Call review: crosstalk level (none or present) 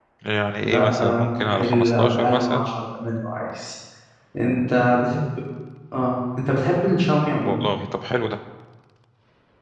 present